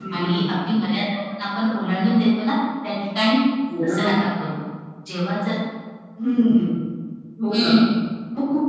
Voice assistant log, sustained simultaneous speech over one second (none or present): none